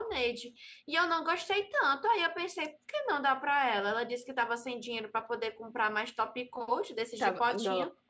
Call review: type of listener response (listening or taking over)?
taking over